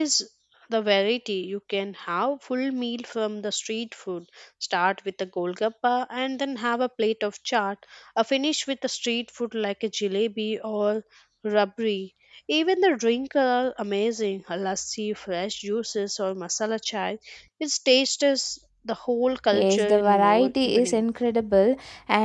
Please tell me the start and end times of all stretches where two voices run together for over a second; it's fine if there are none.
19.5-21.0

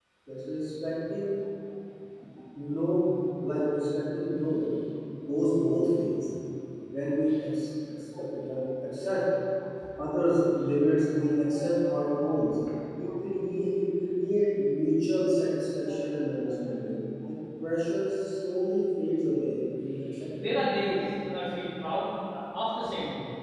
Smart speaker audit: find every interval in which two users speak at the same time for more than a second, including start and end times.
none

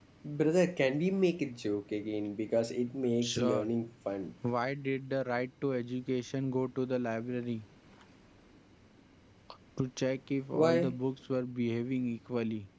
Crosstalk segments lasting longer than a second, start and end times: none

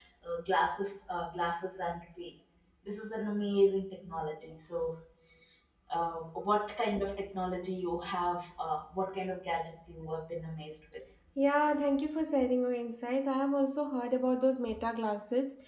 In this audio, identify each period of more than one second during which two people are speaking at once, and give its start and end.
none

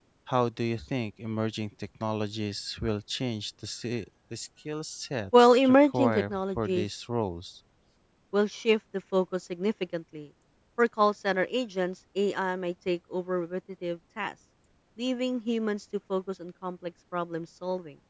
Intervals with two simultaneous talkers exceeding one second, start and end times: 5.4-6.9

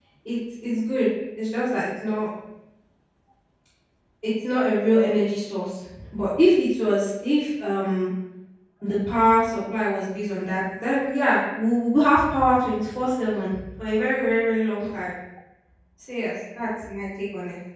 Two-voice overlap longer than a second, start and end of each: none

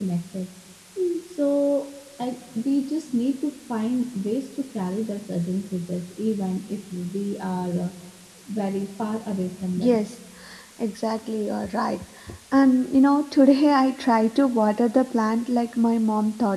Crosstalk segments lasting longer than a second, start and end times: none

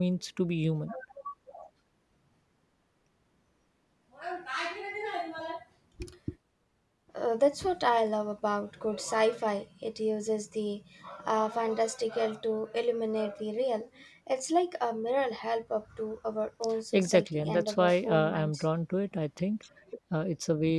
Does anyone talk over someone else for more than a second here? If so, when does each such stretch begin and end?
16.9-18.6

